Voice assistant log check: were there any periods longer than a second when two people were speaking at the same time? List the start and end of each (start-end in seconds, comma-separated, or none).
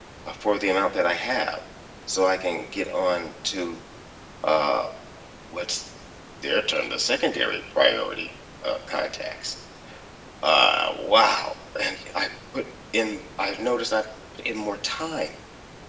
none